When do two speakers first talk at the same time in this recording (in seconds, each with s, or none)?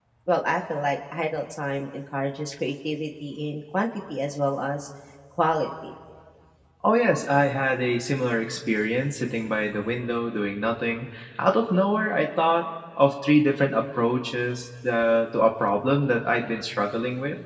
none